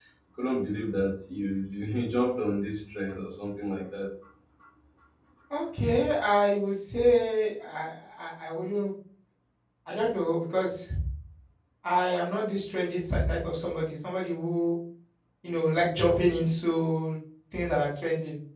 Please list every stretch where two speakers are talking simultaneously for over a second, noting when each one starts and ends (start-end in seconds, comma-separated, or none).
none